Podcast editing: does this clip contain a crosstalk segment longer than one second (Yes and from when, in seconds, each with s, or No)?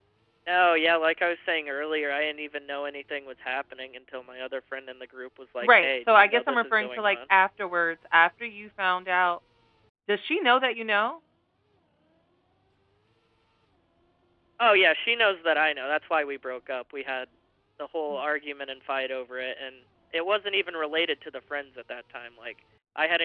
Yes, from 5.6 s